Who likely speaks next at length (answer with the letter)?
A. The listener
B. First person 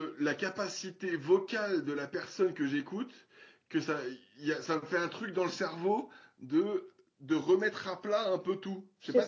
A